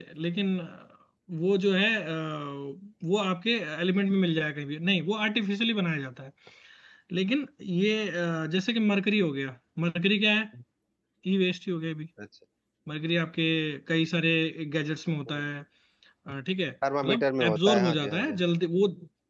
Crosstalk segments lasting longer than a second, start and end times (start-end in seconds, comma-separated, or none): 17.0-18.4